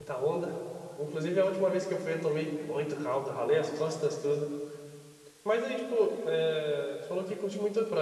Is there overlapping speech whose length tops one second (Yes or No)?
No